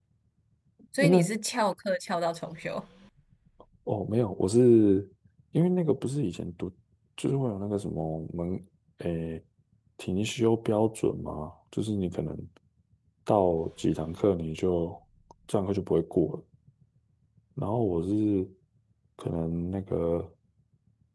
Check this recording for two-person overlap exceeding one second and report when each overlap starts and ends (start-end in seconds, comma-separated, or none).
none